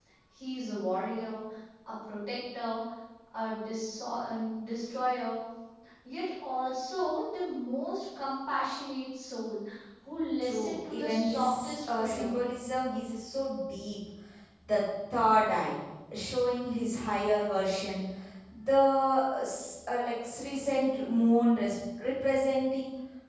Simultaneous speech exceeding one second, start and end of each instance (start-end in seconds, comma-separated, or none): 10.4-12.3